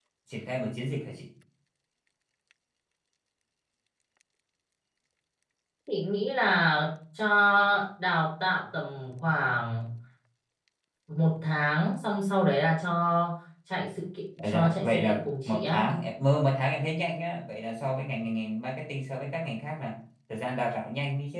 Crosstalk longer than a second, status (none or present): present